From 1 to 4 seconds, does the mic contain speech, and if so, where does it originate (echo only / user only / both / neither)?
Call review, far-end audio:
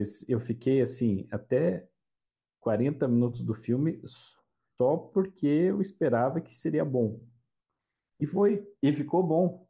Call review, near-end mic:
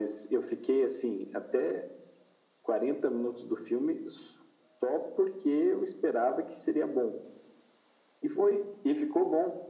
echo only